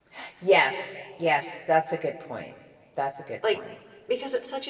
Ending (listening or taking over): taking over